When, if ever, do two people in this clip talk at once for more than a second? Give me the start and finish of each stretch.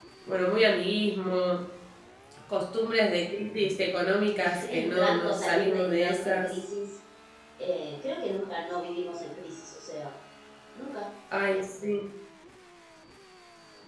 4.7-6.5

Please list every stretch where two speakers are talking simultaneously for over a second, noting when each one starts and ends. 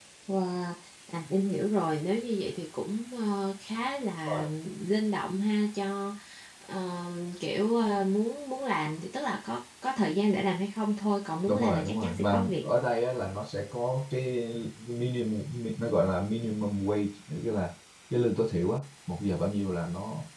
11.5-12.7

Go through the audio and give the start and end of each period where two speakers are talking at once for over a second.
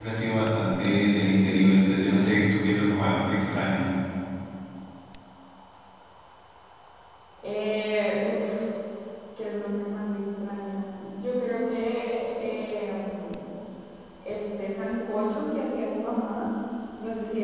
none

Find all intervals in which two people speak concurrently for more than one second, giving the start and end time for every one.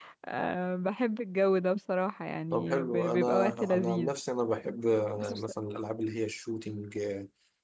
2.5-4.1

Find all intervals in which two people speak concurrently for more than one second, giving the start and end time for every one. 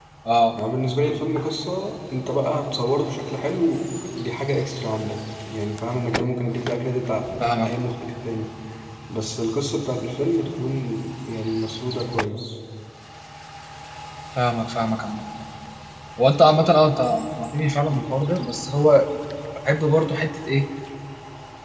none

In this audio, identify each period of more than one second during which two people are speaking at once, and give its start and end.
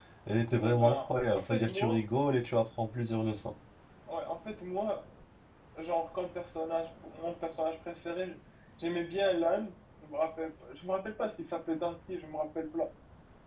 0.6-2.0

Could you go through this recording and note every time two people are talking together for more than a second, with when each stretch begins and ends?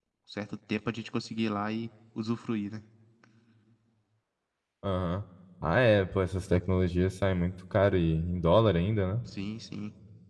none

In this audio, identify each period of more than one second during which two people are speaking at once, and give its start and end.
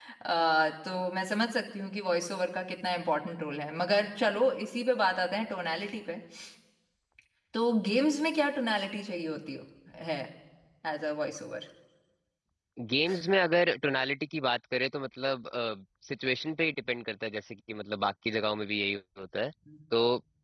none

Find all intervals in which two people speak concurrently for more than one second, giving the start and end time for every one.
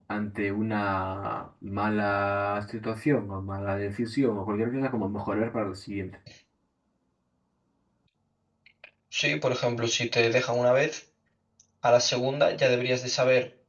none

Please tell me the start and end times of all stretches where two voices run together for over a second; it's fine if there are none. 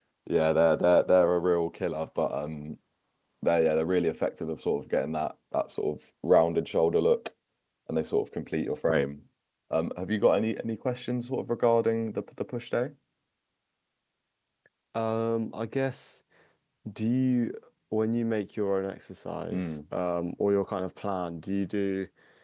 none

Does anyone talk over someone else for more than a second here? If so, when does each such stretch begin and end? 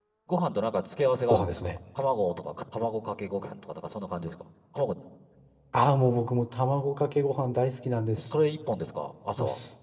none

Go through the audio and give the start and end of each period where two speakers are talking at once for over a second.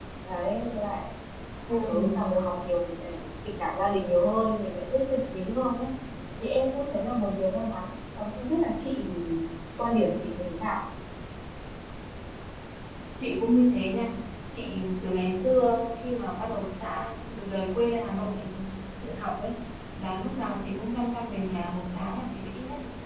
none

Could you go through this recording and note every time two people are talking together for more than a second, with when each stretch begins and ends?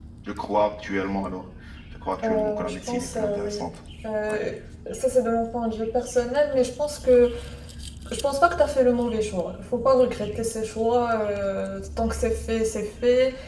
2.2-3.6

